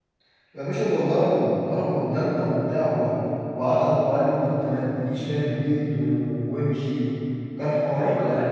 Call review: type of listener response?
taking over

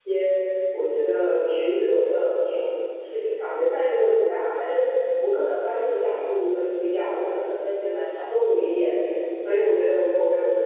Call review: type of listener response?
listening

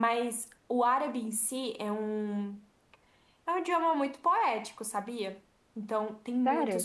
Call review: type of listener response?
listening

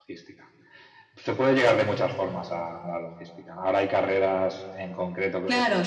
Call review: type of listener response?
taking over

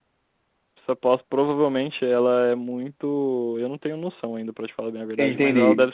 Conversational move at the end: listening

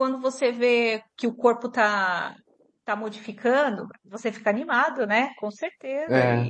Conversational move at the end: taking over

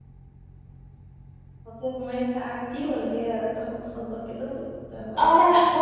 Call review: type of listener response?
taking over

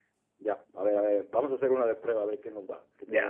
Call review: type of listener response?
taking over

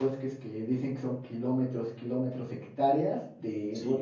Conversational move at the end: listening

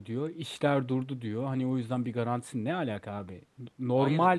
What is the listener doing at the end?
listening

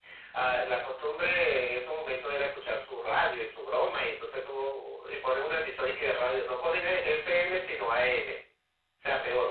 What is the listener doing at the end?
listening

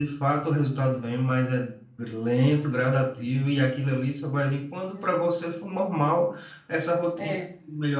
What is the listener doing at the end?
listening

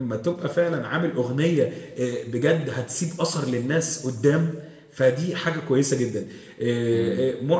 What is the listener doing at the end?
listening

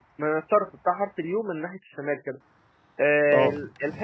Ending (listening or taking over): listening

